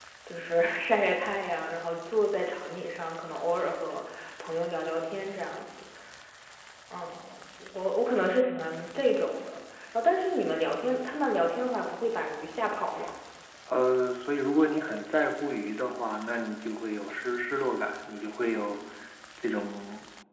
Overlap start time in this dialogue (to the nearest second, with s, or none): none